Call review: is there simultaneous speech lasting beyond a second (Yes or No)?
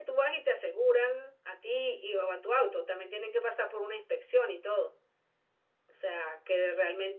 No